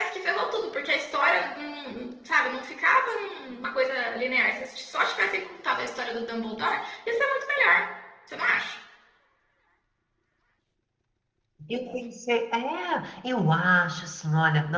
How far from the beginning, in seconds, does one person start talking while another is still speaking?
none

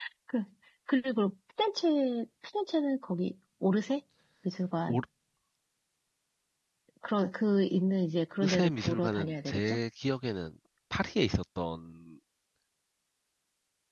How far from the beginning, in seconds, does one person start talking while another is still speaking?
8.4 s

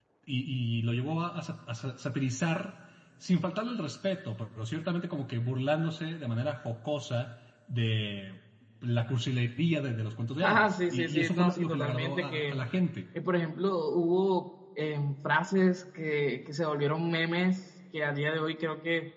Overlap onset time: 10.4 s

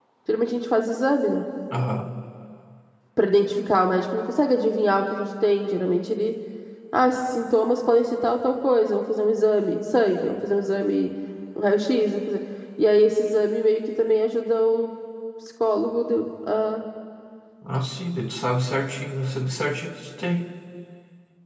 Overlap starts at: none

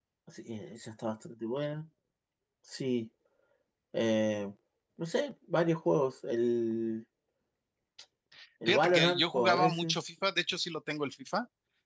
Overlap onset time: 8.7 s

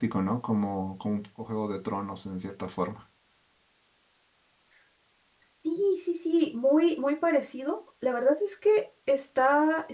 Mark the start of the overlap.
none

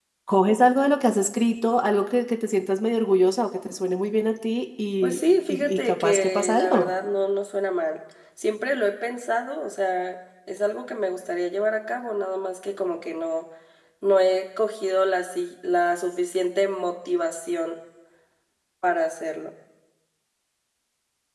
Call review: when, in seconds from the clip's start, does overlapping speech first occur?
5.0 s

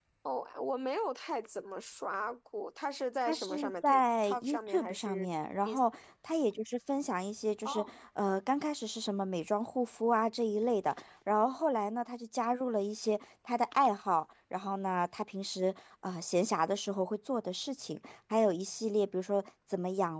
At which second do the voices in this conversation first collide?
3.3 s

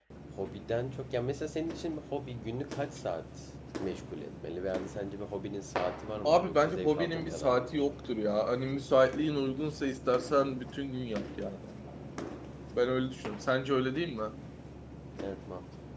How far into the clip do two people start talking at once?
6.2 s

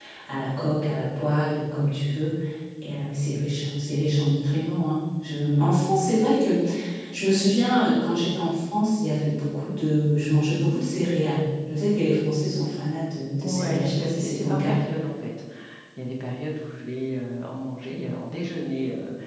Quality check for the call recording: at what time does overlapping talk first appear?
13.4 s

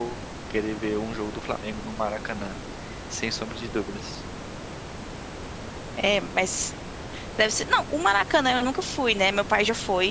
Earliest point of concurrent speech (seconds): none

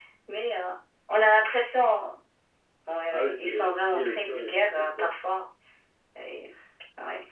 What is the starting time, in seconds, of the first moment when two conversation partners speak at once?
3.1 s

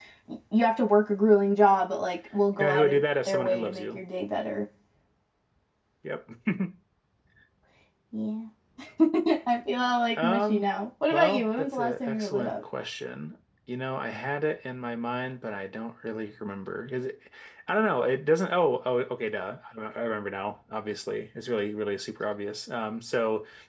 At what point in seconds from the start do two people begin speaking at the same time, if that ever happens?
2.6 s

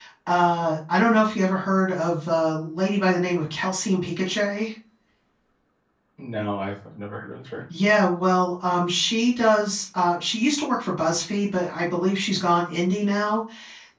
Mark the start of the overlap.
none

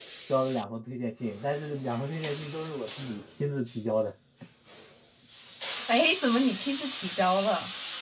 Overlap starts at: none

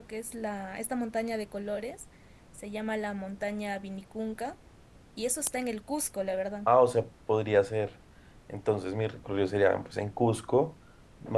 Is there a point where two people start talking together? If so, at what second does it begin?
none

